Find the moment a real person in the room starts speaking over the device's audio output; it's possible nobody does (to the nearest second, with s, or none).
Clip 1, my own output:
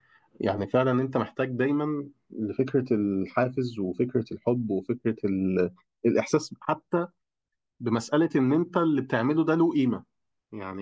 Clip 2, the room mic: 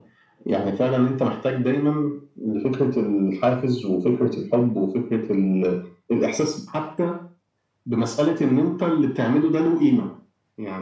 none